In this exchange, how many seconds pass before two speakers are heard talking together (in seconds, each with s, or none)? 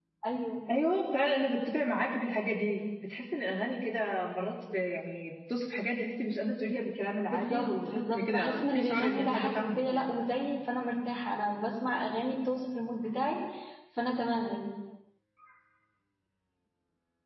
7.3 s